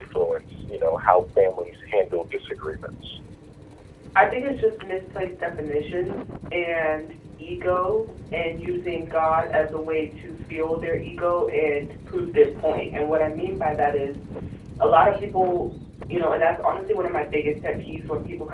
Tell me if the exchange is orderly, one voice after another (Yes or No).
Yes